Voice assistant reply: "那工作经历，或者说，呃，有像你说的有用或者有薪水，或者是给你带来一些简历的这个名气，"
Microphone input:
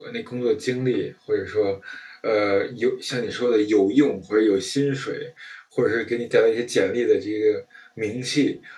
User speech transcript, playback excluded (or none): none